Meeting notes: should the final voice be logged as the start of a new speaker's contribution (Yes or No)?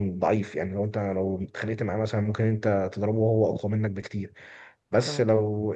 No